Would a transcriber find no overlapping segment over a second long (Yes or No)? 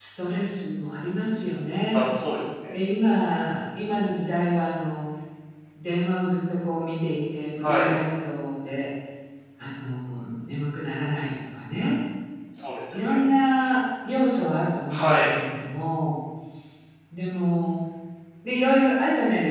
Yes